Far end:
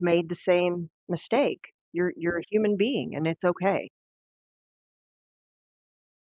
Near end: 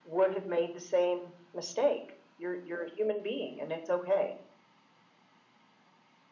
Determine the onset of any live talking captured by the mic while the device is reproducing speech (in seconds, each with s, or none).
none